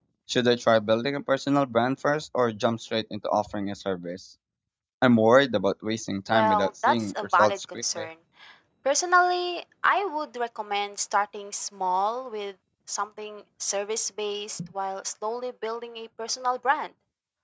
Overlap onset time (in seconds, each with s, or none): 6.3 s